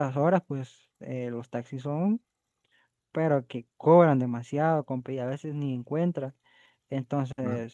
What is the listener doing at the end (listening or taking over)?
listening